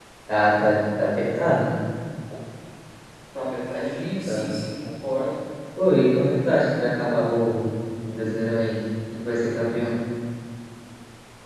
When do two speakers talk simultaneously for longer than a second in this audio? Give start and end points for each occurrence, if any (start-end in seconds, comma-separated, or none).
none